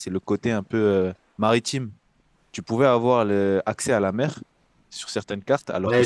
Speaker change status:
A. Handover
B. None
A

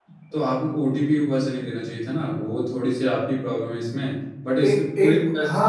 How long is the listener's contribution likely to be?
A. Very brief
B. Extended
B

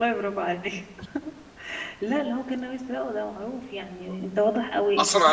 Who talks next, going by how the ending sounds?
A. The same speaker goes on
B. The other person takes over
B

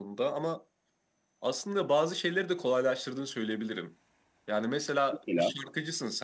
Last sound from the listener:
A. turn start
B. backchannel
B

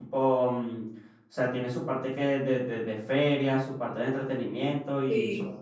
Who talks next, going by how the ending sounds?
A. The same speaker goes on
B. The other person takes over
B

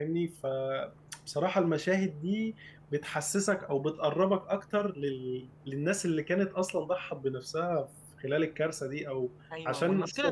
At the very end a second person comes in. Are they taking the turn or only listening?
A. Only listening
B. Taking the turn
B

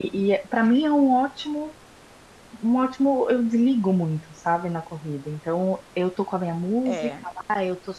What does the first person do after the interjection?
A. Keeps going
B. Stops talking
A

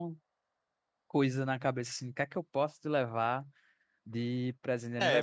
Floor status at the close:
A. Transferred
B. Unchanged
A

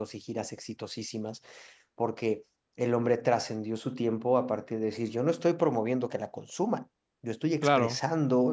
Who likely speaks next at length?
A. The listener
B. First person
B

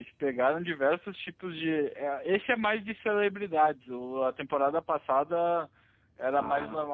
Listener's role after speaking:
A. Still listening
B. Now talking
A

